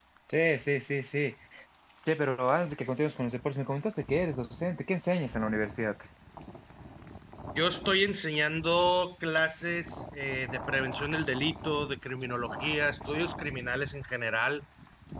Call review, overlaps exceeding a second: none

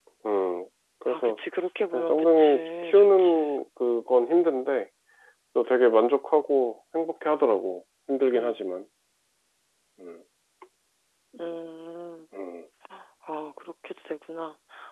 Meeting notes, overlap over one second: present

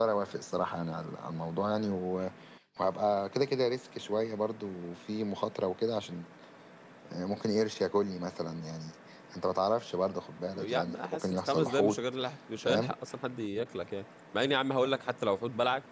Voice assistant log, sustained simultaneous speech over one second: present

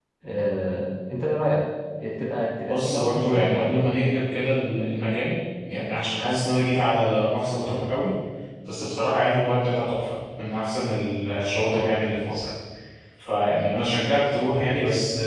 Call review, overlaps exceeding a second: present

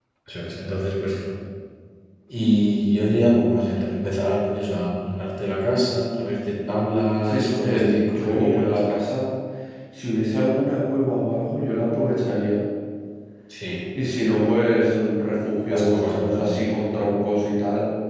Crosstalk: present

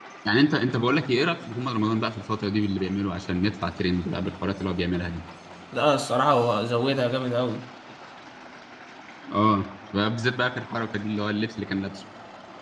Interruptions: none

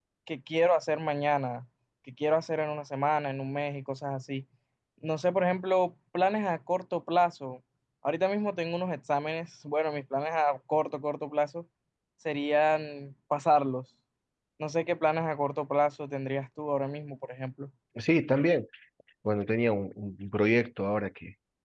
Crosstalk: none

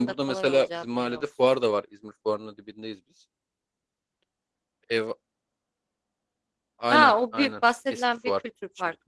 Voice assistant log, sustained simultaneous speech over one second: present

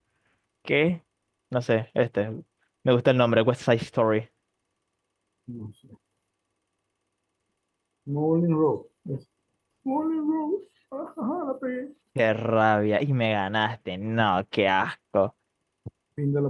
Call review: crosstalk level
none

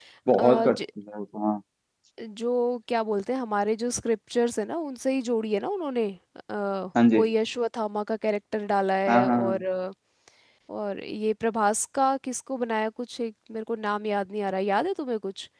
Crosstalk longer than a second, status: none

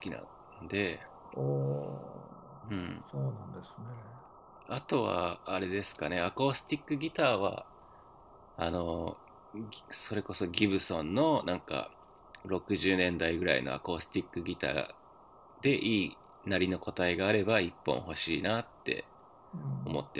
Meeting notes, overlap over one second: none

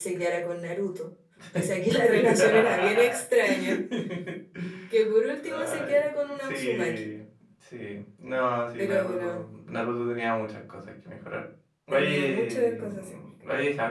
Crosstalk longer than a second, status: present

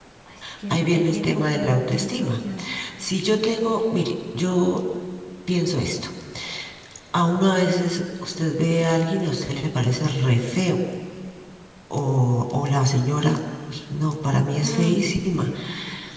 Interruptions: present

